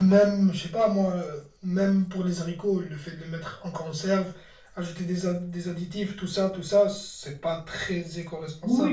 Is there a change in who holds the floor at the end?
Yes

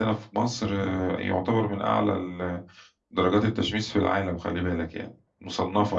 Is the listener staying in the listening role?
No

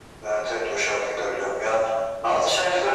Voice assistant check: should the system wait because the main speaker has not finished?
No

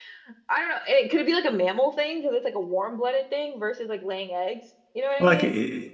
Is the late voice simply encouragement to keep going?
No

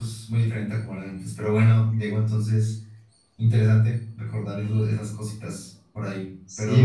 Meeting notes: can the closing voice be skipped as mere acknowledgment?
No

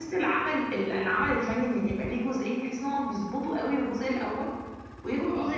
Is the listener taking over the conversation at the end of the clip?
No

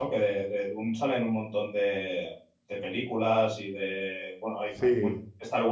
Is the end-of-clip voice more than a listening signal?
No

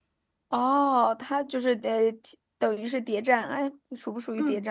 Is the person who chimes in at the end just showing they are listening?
No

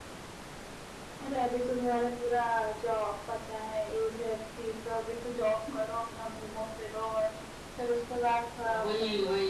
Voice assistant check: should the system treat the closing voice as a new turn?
Yes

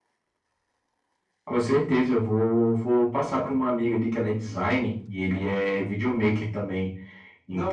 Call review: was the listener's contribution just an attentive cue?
No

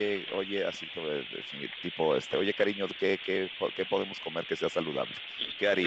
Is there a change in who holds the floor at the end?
Yes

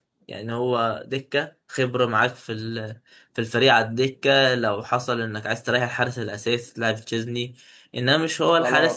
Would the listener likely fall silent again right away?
No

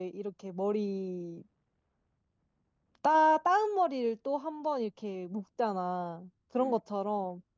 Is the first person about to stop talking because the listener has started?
No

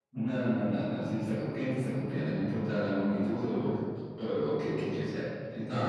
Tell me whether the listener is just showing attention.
No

